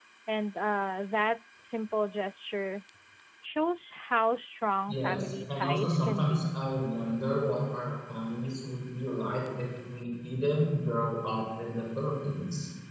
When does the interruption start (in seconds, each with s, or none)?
4.9 s